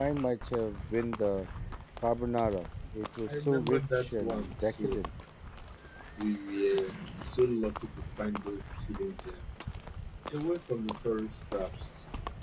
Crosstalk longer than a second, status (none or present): present